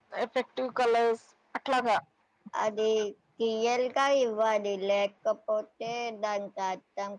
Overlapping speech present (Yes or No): No